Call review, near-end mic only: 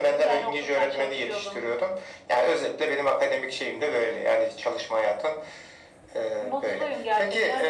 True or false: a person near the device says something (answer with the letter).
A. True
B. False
B